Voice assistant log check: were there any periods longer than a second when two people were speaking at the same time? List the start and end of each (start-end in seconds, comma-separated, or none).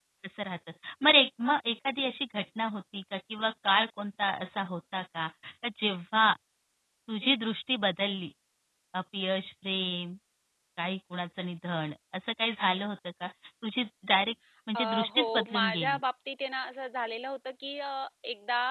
14.8-16.0